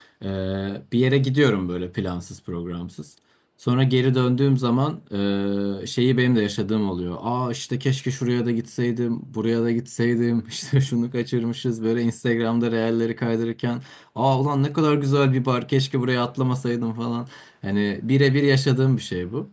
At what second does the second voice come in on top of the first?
none

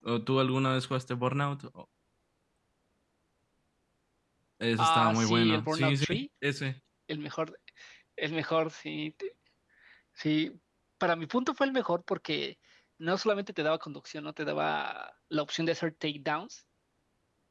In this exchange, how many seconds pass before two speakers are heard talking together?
4.8 s

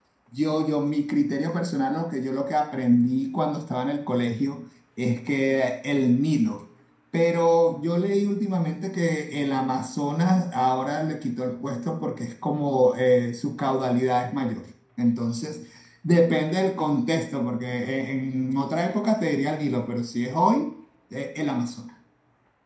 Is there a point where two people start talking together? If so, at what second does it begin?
none

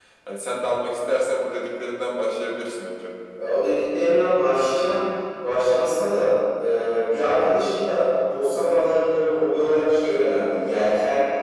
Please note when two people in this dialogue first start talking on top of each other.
none

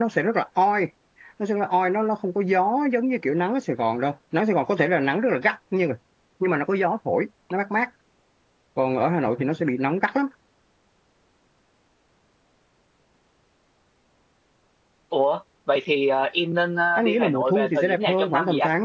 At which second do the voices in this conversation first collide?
17.0 s

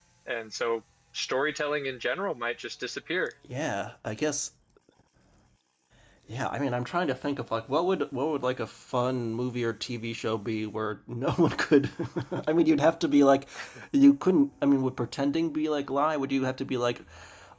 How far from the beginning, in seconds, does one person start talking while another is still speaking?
none

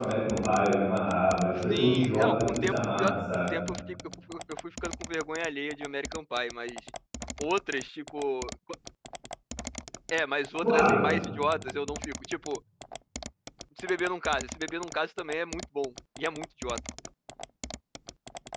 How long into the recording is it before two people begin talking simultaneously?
1.7 s

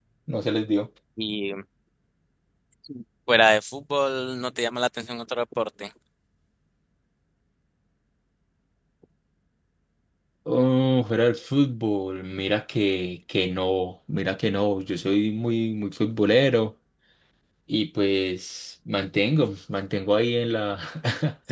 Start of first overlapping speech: none

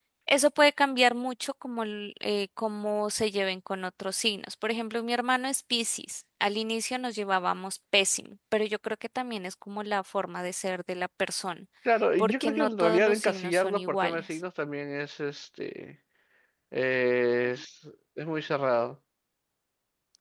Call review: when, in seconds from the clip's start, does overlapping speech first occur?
12.2 s

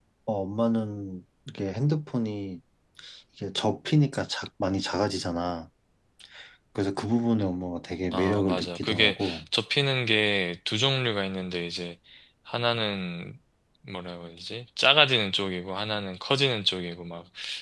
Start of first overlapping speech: 8.1 s

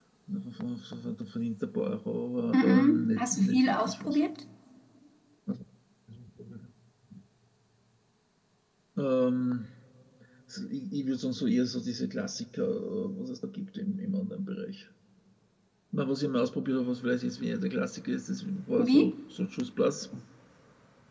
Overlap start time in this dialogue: 2.5 s

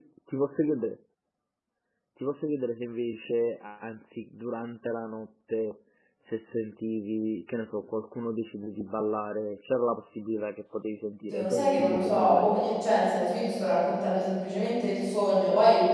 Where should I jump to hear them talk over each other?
11.2 s

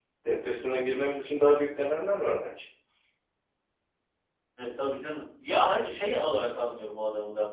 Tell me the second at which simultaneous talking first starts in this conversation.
none

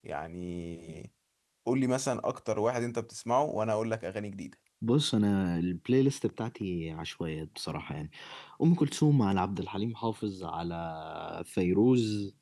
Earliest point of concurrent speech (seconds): none

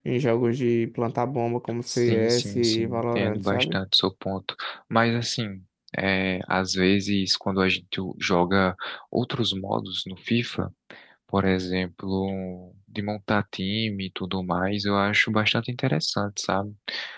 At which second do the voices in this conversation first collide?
1.9 s

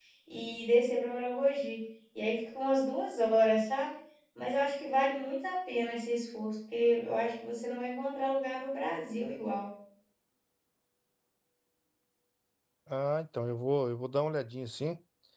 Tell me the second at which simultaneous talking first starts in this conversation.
none

